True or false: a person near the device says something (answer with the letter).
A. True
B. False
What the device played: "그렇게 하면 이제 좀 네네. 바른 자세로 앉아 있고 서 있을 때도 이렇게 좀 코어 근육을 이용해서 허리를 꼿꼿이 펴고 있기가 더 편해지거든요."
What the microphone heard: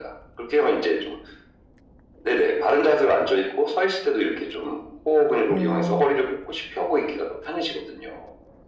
A